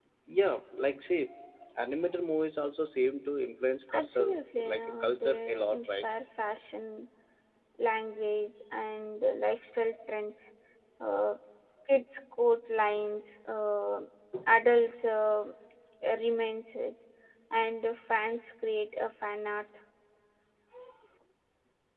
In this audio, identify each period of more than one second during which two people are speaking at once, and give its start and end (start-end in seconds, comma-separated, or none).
3.9-6.0